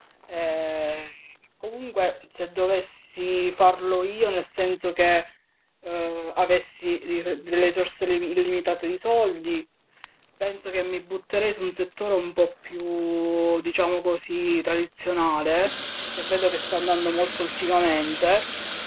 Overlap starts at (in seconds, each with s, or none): none